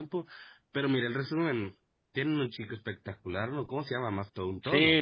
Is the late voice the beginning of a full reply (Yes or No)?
Yes